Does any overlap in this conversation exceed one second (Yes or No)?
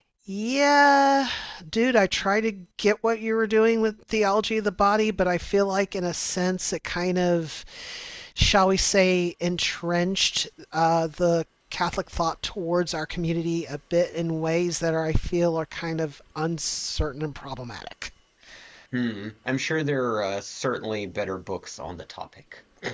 No